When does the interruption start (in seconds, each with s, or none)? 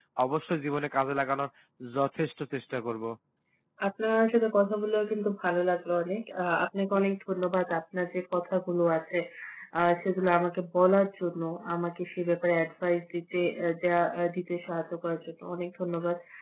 none